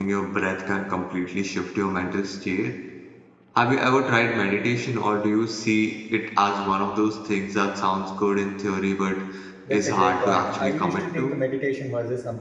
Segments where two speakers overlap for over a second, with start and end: 9.7-11.4

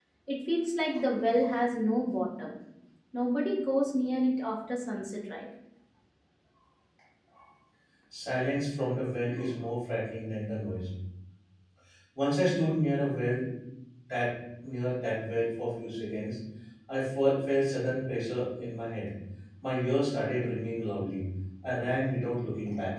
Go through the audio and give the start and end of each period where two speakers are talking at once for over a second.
none

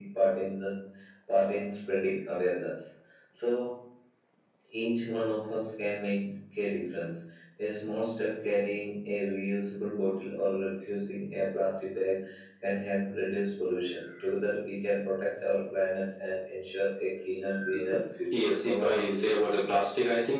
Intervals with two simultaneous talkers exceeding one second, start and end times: 18.3-19.5

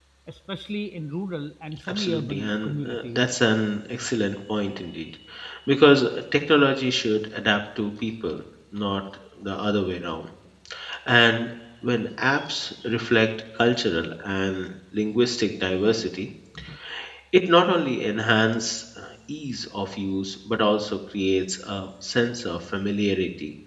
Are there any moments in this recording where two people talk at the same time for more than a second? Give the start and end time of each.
1.9-3.3

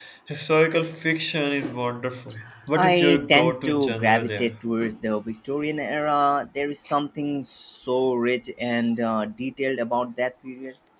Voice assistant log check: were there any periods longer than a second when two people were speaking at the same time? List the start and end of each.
2.8-4.5

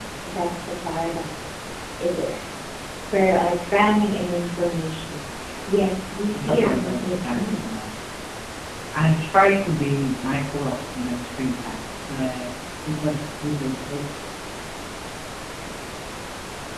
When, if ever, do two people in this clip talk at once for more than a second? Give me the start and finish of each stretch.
6.4-7.7

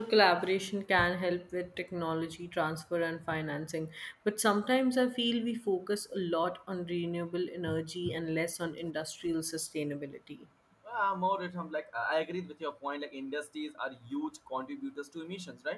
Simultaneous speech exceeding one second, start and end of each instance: none

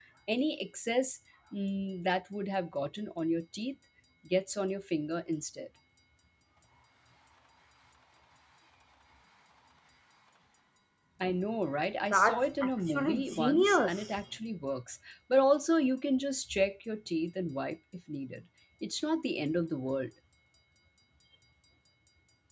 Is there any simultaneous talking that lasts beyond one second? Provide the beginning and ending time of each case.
12.1-13.9

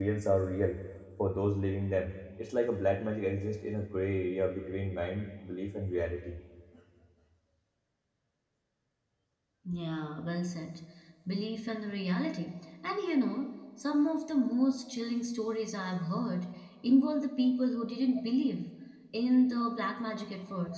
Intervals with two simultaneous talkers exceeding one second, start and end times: none

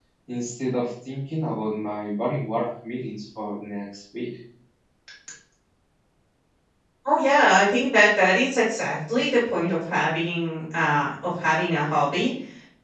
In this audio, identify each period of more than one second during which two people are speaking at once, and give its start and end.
none

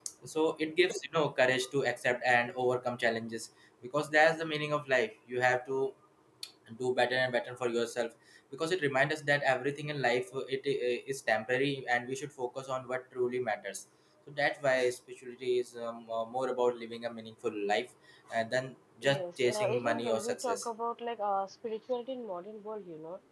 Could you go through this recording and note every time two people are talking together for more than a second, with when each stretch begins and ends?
19.0-20.7

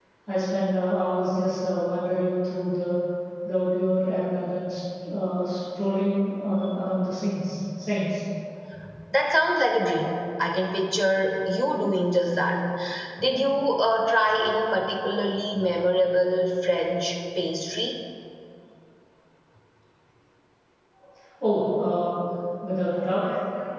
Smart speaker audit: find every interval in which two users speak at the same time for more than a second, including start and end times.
none

